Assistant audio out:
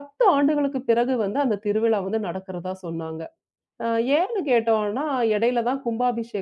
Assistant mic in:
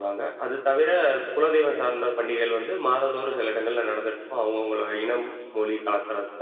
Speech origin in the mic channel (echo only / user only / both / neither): user only